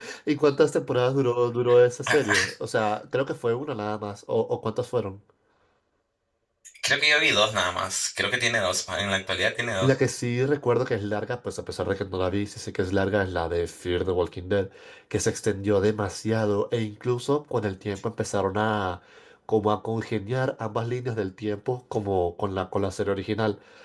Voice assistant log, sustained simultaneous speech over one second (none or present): none